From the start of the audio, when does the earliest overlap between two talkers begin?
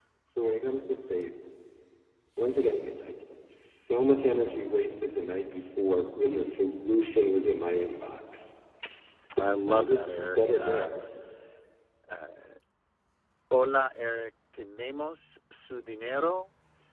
9.7 s

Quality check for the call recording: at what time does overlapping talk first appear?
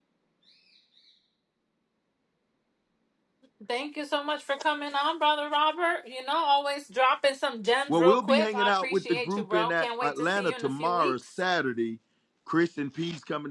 7.9 s

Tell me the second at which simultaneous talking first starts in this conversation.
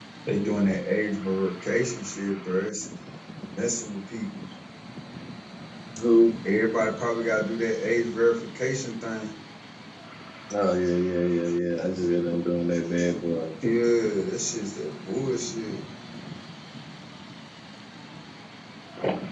none

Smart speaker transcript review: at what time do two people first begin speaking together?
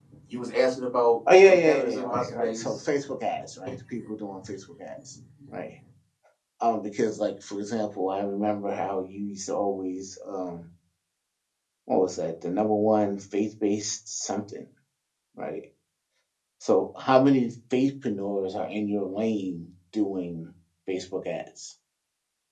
1.3 s

